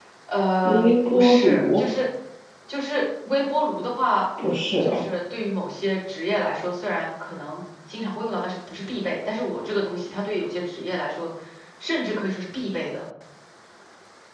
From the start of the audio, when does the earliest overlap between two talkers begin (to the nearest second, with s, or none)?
1 s